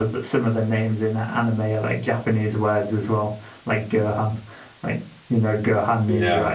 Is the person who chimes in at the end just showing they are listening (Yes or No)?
No